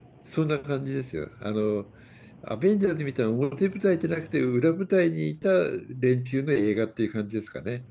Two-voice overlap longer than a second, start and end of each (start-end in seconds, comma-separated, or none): none